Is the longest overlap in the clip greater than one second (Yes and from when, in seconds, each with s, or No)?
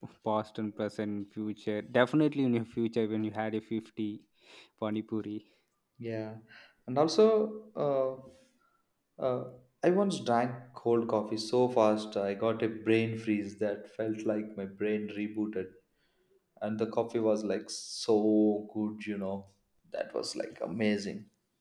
No